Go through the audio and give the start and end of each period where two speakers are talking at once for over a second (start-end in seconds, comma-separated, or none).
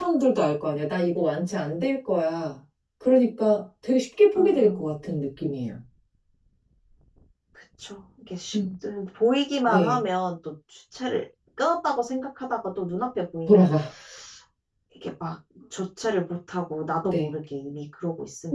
none